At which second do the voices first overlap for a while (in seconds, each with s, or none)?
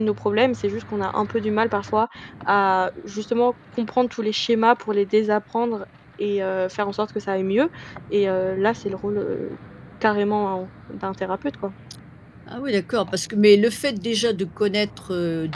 none